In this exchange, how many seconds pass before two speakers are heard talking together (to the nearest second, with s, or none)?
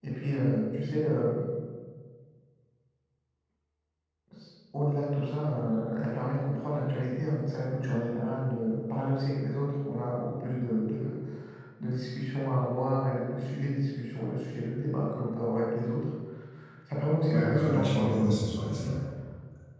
17 s